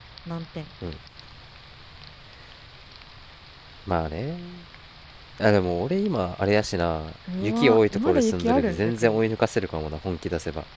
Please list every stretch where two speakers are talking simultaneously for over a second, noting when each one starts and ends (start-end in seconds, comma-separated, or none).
7.4-9.2